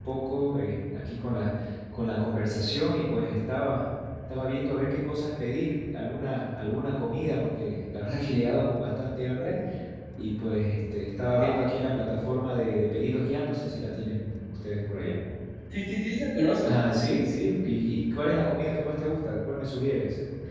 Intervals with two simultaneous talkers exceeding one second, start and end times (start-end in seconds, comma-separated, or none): none